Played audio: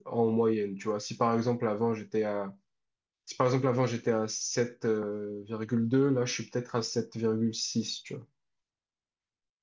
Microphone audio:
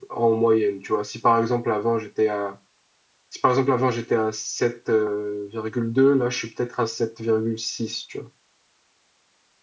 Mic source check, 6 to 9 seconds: echo only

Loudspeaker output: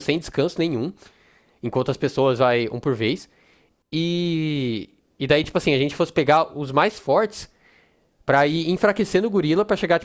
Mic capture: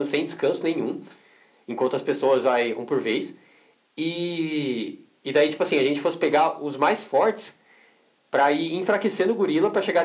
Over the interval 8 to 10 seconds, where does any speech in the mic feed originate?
echo only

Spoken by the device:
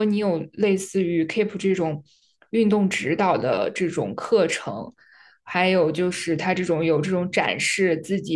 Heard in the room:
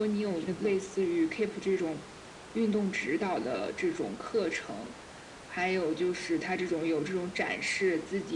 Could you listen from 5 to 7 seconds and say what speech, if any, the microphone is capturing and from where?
echo only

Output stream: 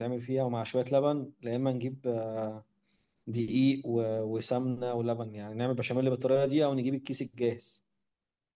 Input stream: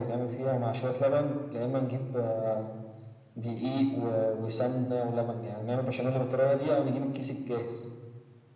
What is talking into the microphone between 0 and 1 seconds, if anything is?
echo only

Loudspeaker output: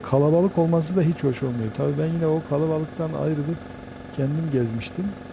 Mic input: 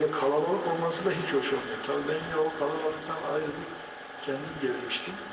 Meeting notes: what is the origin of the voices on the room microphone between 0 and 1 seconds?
echo only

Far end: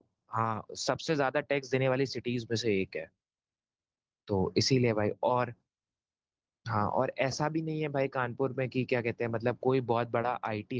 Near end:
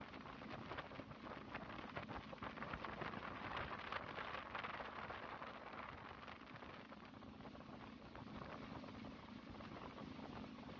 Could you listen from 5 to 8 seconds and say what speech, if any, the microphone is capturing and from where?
neither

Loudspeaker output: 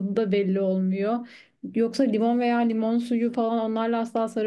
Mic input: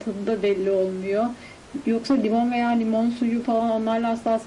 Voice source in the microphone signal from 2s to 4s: echo only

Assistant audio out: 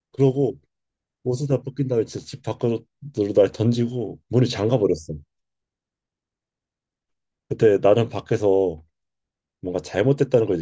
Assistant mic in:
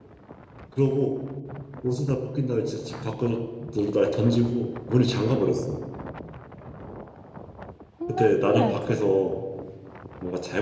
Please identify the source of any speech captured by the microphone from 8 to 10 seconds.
both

